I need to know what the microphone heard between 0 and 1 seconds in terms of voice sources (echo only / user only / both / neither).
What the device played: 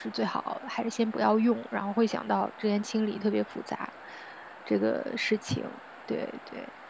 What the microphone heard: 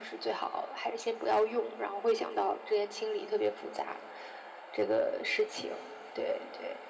echo only